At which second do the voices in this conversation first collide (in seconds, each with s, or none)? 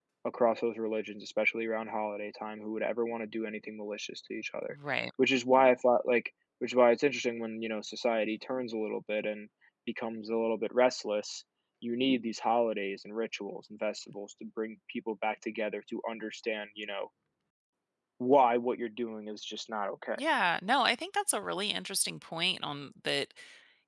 none